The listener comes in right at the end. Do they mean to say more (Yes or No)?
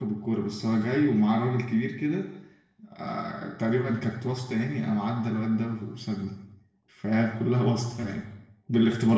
Yes